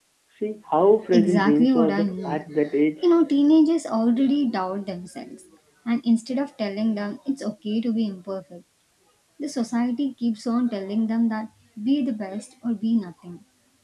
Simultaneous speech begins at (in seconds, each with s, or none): 1.1 s